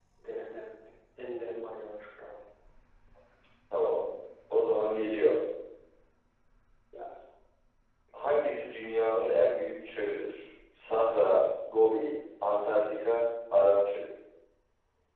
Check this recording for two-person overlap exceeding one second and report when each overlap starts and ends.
none

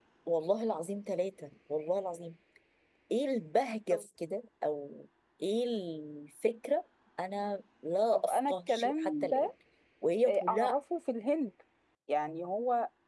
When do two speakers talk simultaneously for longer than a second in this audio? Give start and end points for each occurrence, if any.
8.1-9.5

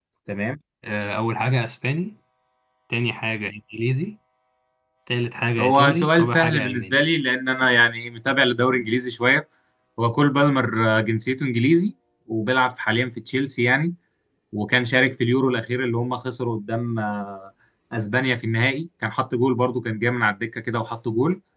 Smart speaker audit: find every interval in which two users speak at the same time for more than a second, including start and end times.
5.6-7.0

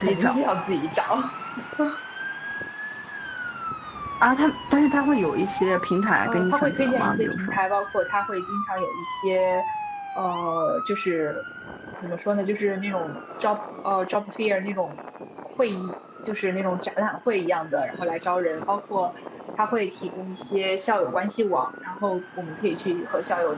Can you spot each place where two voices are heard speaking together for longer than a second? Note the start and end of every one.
6.2-7.6

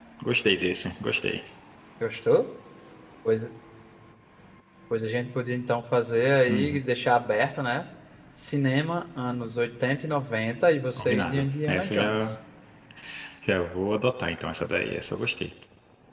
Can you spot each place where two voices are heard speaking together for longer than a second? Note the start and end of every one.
11.0-12.4

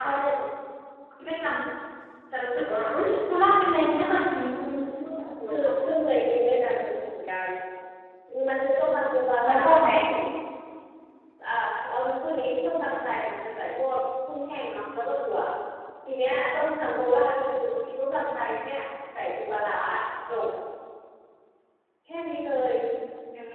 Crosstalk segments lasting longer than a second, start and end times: none

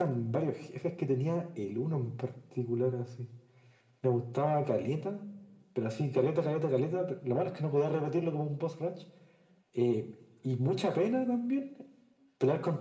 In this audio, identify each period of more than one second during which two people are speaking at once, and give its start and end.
none

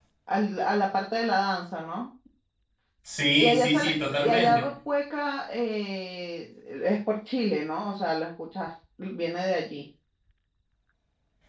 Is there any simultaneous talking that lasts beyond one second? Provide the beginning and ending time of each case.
3.4-4.7

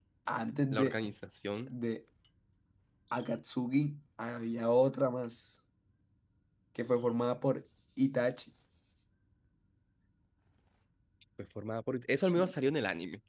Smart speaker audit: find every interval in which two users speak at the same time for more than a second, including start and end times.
none

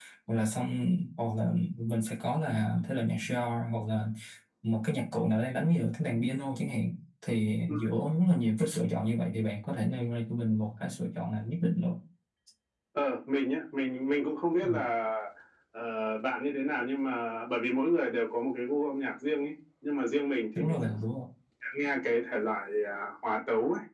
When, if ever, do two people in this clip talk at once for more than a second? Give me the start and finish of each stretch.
none

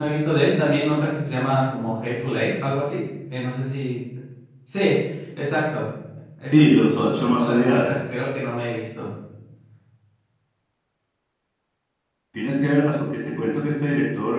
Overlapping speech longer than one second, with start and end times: 6.5-7.9

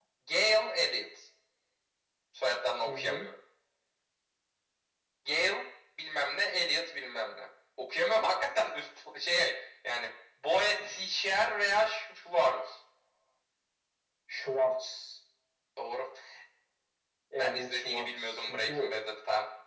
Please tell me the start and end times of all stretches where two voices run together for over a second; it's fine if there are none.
17.4-18.9

